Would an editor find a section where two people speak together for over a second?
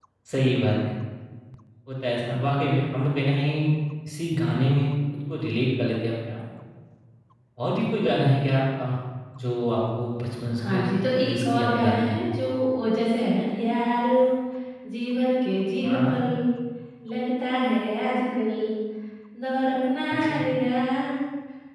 Yes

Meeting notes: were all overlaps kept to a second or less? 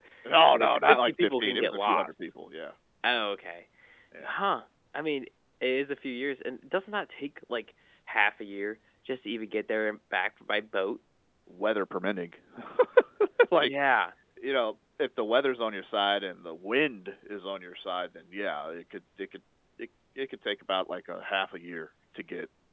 No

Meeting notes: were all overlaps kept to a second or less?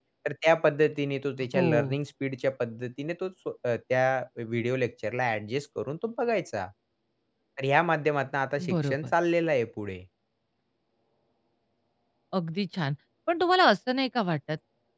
Yes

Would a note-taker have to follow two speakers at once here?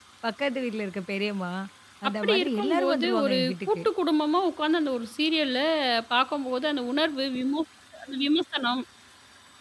Yes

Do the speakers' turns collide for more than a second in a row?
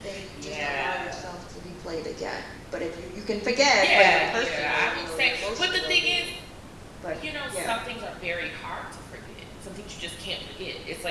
Yes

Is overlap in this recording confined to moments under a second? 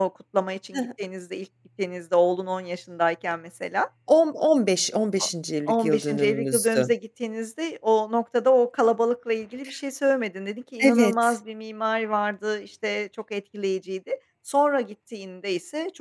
No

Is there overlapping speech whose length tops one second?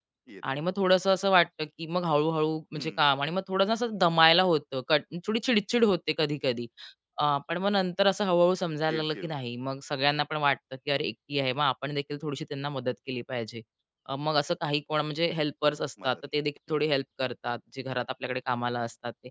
No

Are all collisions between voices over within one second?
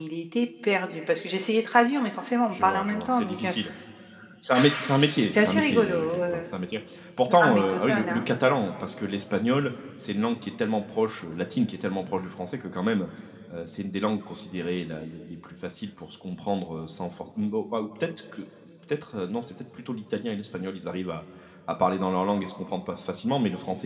No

